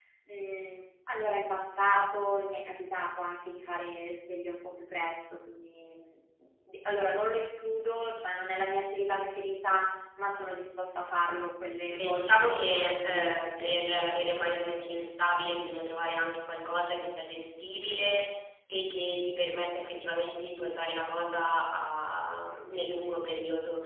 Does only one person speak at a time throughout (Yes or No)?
No